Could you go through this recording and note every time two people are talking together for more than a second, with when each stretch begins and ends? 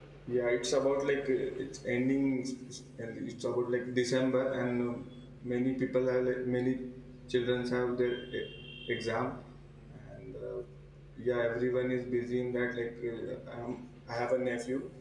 none

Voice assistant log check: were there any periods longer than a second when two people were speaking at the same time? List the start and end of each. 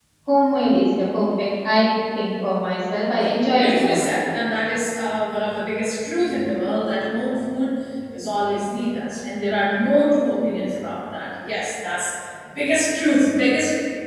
none

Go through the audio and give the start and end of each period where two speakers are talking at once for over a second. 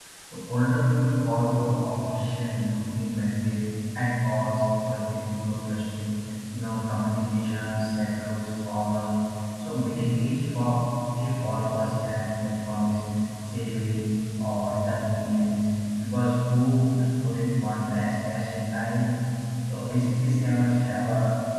none

